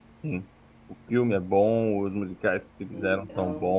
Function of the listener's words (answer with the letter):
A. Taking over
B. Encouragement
B